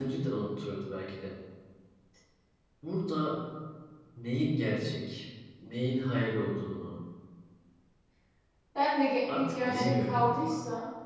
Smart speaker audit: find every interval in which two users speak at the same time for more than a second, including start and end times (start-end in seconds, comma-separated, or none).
9.3-10.6